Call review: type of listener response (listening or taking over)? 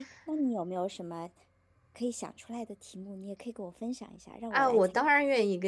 taking over